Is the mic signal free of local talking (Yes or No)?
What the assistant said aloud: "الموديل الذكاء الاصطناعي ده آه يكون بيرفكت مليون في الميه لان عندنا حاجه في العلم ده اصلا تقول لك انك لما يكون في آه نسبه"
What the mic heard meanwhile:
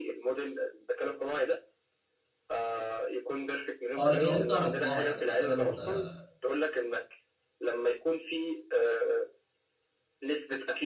No